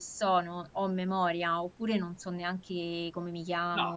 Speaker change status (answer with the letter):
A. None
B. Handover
B